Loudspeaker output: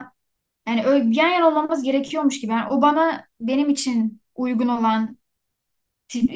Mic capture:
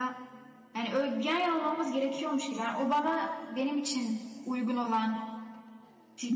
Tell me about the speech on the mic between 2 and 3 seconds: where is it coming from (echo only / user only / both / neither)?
echo only